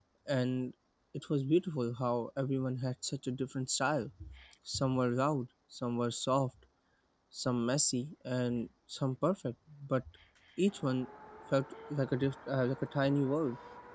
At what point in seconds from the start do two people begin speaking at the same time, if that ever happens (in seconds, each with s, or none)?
none